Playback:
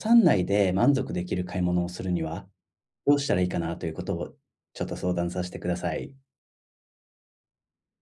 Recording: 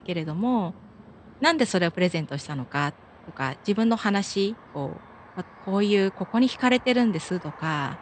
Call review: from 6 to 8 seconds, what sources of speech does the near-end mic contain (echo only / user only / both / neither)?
user only